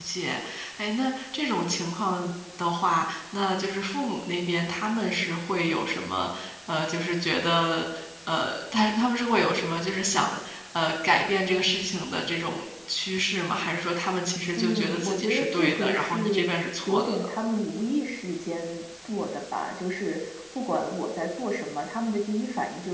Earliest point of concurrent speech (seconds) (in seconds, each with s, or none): 14.6 s